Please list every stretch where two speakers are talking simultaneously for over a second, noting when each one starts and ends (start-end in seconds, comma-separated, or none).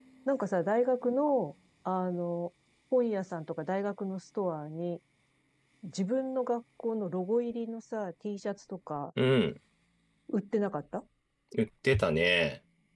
none